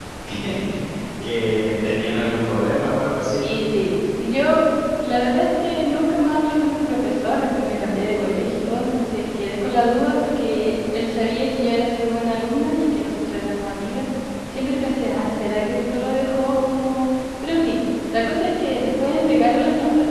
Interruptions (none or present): none